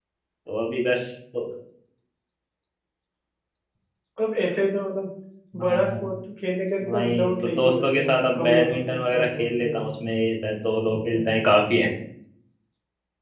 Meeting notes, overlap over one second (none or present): present